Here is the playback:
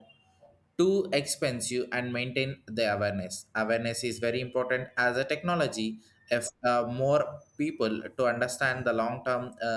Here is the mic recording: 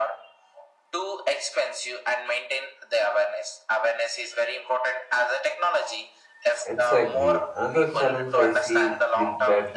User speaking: Yes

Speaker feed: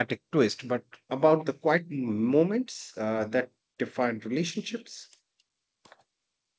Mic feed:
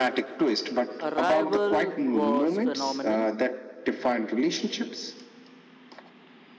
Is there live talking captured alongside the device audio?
Yes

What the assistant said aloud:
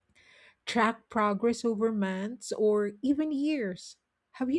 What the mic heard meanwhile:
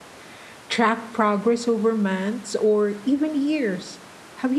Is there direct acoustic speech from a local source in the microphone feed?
No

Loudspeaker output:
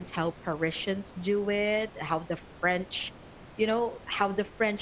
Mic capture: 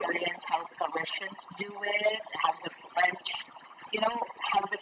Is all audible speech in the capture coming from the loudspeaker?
Yes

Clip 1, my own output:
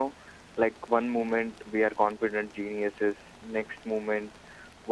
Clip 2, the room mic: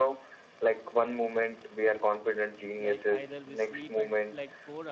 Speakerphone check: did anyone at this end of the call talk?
Yes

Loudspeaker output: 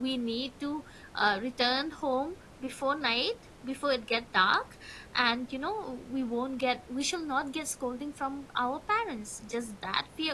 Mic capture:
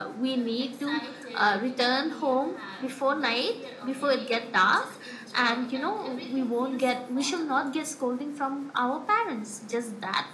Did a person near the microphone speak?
Yes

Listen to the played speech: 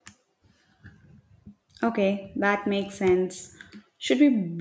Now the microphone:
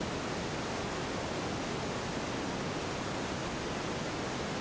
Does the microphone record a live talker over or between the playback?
No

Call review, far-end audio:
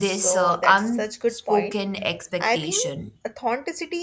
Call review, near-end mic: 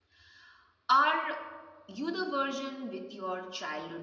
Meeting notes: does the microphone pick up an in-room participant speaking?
Yes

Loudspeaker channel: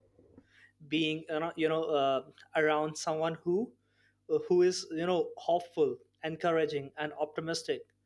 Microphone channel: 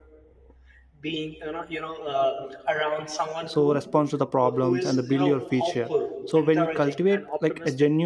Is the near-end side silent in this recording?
No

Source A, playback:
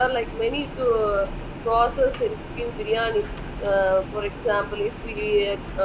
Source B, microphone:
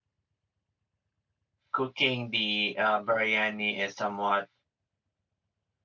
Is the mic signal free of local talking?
No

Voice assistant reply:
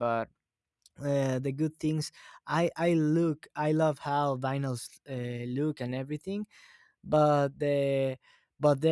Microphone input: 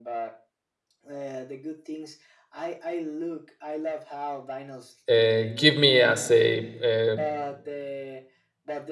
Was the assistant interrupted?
Yes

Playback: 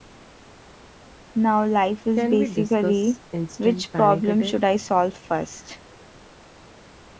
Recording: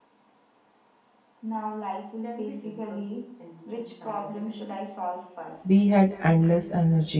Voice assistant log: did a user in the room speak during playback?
Yes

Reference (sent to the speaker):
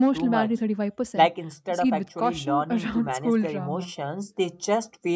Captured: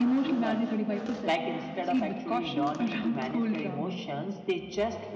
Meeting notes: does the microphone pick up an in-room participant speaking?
No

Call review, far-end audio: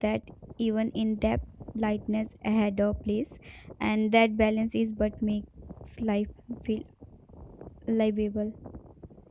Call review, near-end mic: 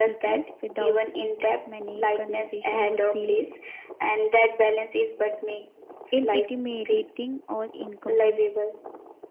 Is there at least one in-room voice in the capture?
Yes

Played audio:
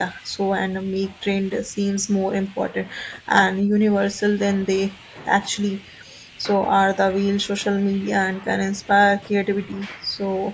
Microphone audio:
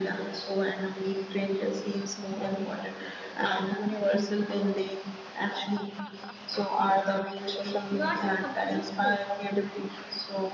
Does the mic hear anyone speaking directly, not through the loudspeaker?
Yes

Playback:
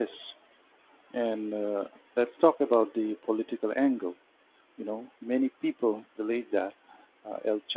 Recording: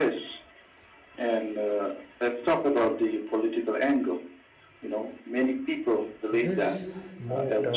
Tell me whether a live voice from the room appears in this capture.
Yes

